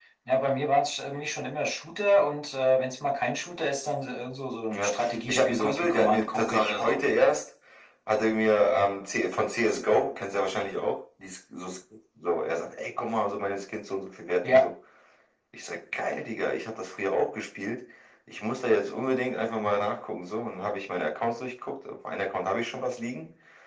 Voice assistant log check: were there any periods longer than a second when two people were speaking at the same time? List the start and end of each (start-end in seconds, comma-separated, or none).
4.7-7.0